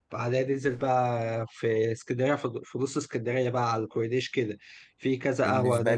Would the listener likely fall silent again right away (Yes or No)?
Yes